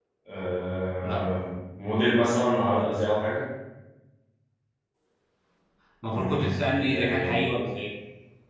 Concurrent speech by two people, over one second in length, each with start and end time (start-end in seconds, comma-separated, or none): 6.1-7.5